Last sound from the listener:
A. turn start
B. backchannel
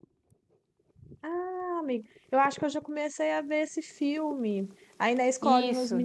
B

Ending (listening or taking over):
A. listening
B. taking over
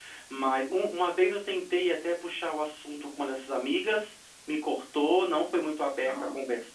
A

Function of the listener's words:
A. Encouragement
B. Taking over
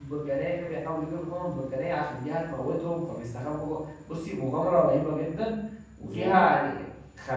A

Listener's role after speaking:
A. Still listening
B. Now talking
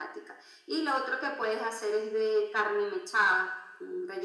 A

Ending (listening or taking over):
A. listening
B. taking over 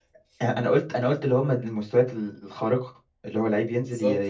A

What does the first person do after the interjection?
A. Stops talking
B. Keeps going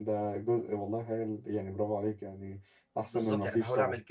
A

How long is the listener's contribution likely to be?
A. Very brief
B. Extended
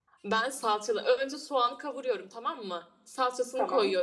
A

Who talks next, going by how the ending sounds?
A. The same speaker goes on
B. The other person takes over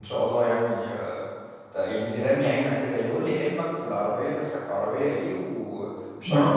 B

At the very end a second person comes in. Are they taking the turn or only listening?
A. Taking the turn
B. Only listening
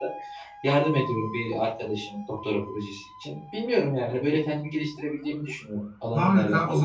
A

